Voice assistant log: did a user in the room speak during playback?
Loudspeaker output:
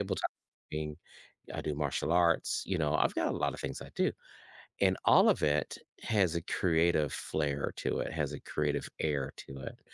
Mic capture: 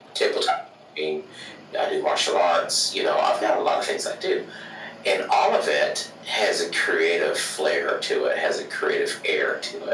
No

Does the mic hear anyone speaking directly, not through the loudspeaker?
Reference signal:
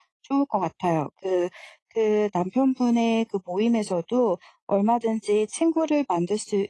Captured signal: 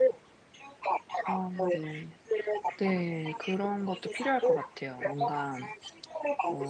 Yes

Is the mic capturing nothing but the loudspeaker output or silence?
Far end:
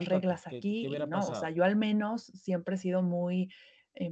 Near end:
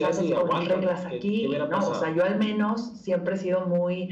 Yes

